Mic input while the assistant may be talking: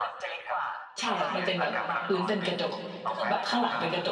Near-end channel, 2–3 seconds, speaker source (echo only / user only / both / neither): both